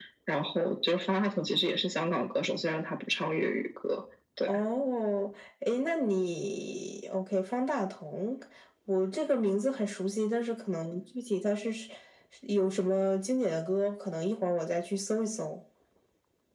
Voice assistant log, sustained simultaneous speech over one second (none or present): none